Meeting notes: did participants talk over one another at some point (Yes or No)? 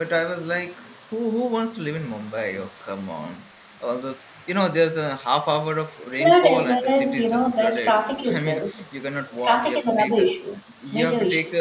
Yes